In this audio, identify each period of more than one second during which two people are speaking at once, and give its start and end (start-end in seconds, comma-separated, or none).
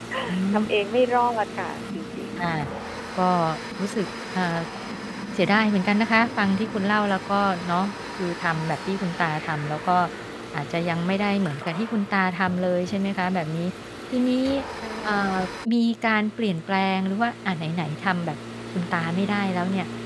none